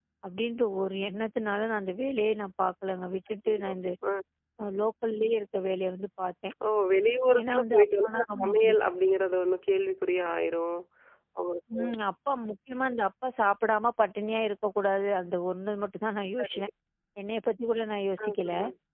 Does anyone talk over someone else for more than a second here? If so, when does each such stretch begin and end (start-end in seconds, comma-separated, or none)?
7.4-8.8